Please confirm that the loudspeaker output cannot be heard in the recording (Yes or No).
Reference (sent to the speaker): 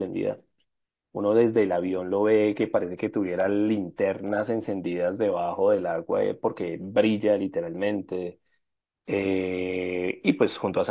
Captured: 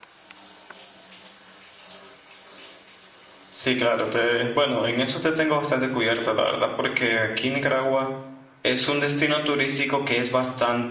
Yes